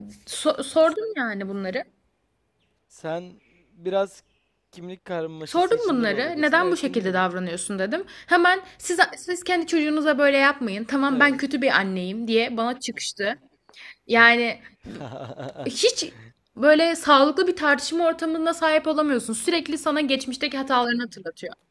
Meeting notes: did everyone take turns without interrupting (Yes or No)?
No